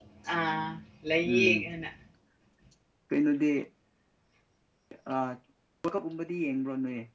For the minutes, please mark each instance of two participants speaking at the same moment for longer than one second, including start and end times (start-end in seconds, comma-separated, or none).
none